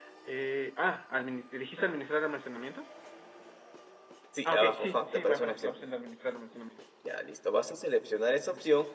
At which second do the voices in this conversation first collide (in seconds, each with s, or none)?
4.5 s